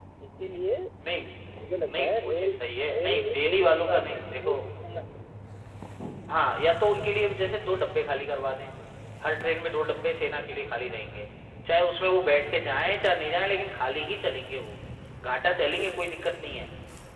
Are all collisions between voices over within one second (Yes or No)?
No